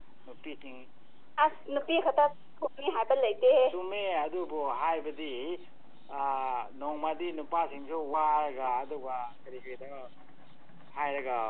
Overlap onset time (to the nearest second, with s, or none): none